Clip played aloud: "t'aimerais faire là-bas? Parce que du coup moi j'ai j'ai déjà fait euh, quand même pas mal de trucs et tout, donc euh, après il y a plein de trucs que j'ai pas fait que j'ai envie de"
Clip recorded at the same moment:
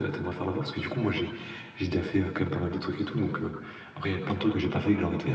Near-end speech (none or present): none